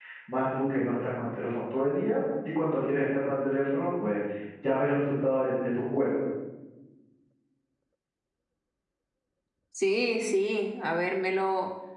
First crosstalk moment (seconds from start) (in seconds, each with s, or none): none